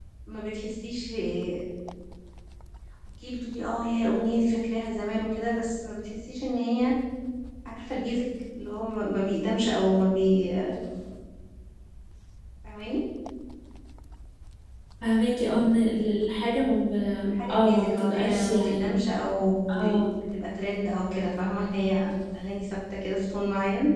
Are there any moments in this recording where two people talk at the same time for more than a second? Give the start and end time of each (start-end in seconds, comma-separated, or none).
17.5-19.0